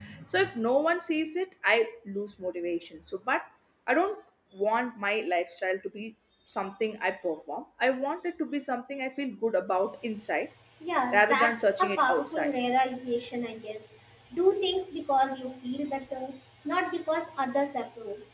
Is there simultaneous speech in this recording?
Yes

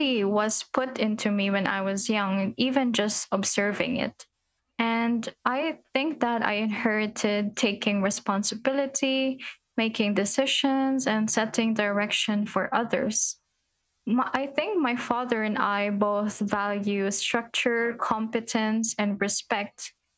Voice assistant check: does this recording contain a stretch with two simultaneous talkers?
No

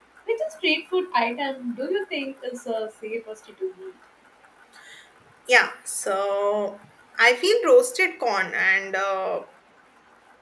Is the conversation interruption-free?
Yes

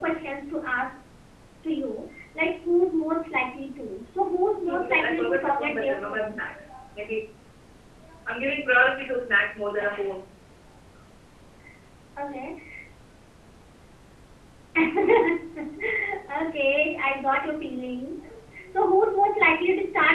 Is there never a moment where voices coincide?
No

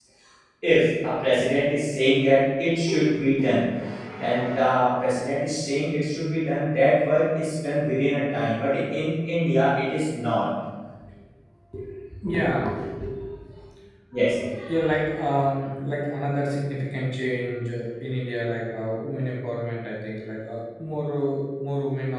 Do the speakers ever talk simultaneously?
No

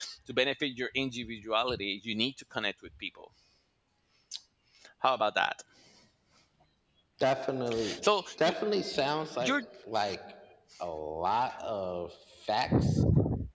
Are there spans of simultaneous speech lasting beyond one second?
No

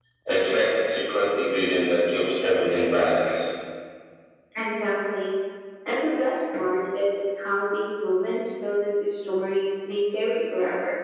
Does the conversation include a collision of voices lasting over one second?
No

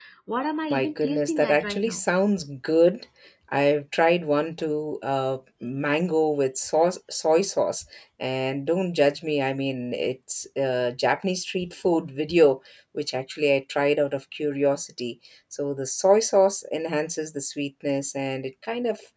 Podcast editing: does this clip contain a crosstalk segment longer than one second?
Yes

